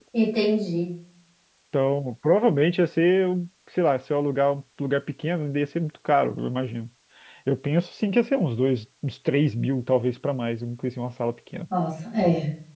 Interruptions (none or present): none